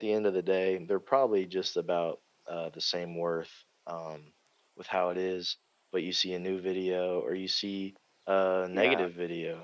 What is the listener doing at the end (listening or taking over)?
listening